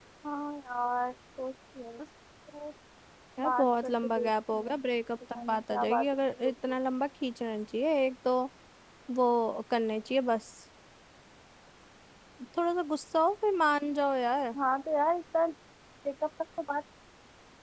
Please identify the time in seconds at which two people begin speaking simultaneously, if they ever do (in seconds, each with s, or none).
3.4 s